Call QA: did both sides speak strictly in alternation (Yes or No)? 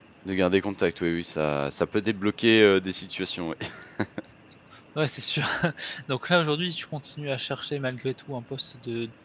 Yes